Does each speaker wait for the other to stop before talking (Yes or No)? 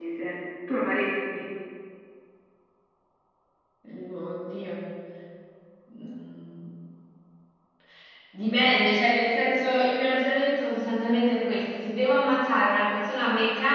Yes